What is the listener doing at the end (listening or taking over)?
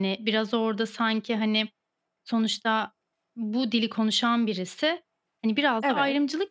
listening